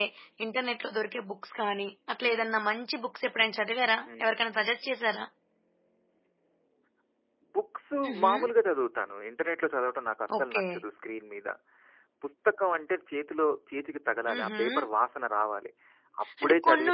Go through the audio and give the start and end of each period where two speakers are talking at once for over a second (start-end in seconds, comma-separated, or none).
none